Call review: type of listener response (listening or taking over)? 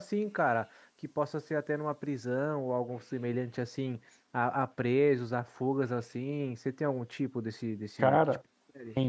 taking over